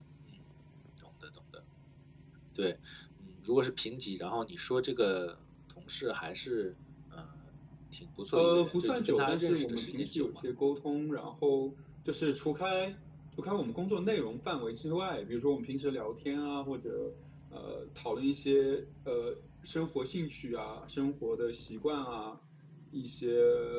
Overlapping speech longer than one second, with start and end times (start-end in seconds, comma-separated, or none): 8.3-10.3